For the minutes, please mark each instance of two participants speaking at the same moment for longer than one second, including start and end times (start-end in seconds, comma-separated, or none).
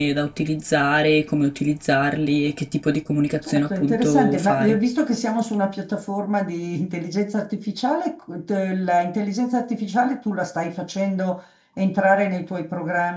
3.5-4.8